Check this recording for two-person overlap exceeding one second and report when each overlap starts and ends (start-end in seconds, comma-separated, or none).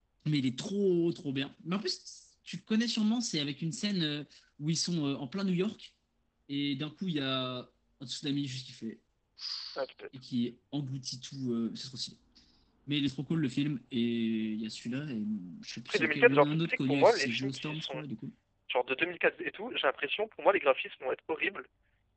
15.9-18.0